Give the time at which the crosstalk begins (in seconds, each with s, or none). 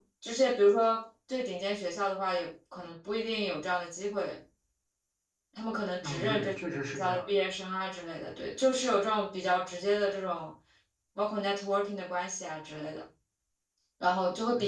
6.0 s